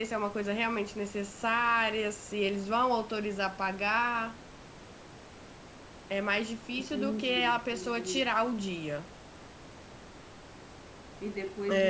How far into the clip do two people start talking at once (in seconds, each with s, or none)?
6.8 s